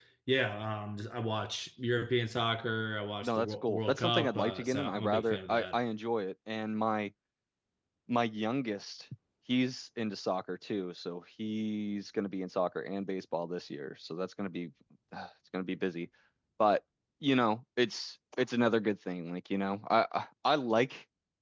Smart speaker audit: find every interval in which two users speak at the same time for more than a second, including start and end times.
3.2-5.8

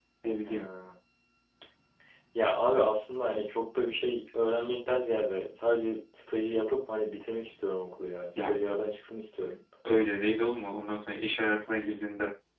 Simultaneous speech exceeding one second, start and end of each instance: none

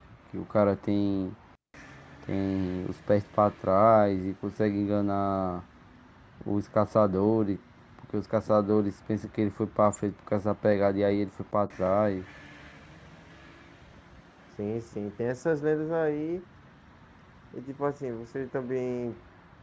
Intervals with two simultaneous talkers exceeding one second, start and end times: none

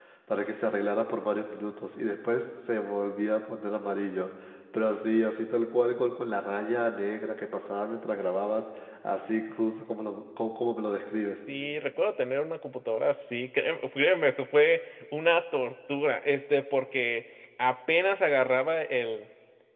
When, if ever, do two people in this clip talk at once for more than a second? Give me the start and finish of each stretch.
none

